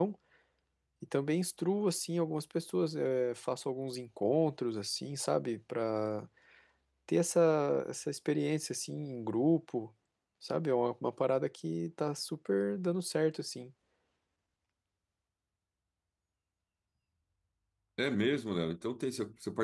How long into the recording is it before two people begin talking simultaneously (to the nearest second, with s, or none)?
none